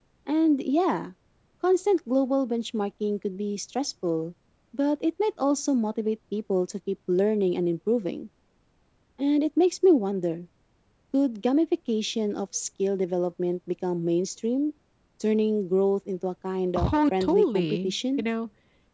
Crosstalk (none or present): present